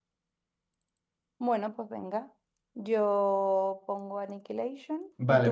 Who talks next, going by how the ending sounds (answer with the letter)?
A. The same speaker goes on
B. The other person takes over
B